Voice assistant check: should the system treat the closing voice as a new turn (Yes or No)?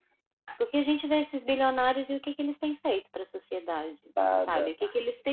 No